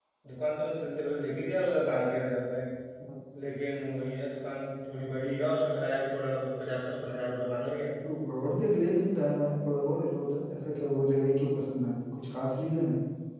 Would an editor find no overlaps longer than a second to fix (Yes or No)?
Yes